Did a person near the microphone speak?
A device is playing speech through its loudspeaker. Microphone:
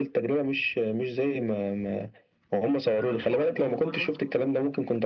Yes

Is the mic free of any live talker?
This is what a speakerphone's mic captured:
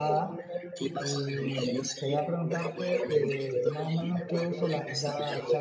No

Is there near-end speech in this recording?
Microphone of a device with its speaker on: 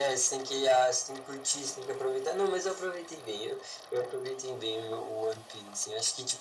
No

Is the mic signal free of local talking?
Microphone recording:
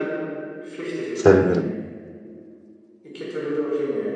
No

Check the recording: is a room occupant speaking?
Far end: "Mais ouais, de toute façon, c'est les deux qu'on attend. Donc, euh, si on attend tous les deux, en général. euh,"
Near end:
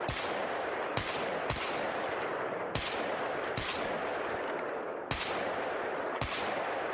No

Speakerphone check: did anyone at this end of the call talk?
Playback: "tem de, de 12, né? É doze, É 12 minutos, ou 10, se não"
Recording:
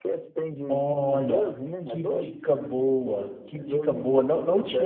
Yes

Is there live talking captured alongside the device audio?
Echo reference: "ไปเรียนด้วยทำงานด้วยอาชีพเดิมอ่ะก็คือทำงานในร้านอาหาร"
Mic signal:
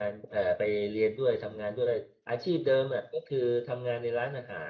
No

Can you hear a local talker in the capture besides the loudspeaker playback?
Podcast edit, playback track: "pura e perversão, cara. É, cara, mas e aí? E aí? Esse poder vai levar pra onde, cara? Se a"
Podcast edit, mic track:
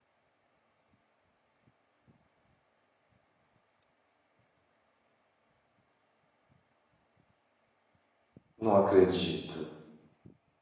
Yes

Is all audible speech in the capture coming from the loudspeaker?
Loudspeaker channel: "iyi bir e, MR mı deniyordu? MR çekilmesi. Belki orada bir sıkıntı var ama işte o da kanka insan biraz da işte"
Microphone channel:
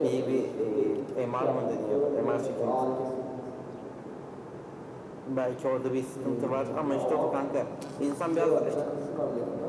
No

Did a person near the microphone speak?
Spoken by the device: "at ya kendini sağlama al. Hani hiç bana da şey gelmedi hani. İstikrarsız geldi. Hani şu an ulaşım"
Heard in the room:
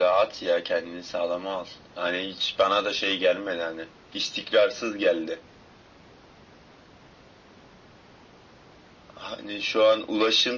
No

